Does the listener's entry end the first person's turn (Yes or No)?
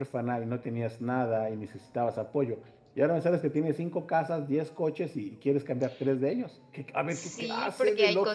Yes